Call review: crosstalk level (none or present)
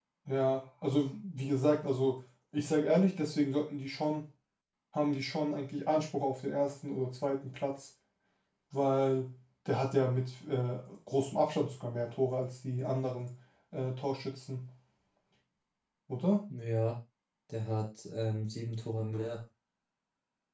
none